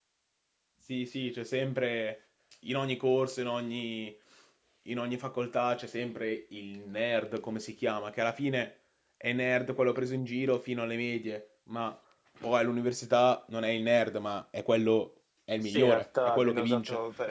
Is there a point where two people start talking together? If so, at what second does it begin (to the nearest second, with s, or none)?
16 s